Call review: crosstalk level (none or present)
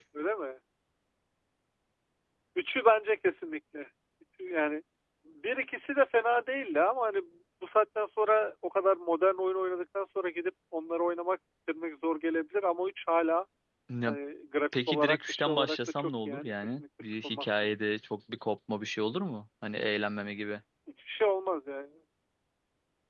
present